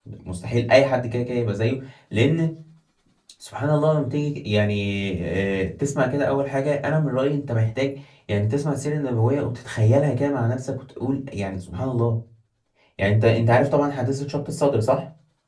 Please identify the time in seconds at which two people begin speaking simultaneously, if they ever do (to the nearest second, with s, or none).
none